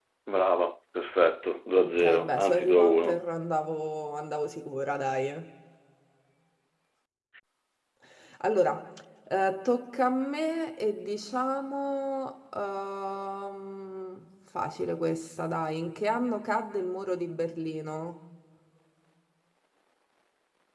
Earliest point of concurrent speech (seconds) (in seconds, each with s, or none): 1.8 s